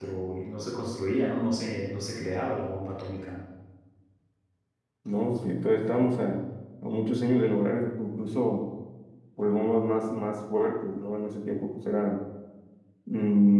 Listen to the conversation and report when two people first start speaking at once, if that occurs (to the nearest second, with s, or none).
none